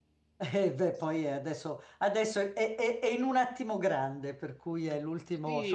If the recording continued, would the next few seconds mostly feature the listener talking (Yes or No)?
Yes